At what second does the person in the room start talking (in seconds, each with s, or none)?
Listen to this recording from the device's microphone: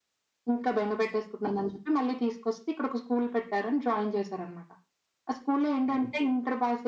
none